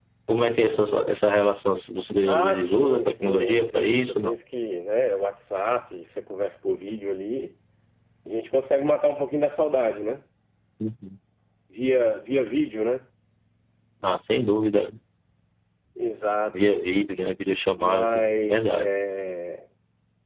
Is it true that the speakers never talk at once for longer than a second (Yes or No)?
No